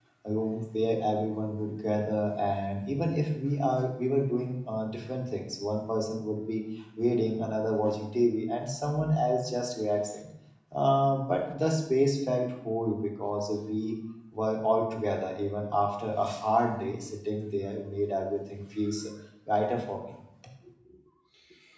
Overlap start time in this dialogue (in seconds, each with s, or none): none